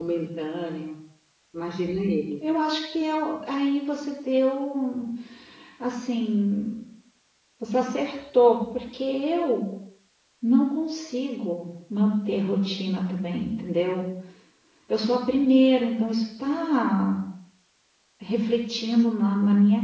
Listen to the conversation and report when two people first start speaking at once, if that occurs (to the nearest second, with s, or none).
none